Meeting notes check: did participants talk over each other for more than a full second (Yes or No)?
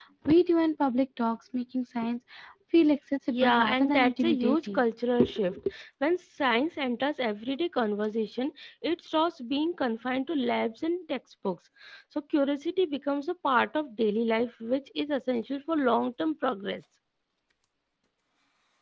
Yes